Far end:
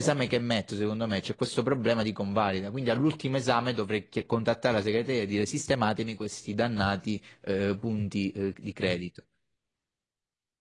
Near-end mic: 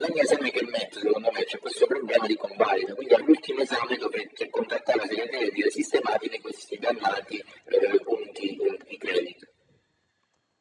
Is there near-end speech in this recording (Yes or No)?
No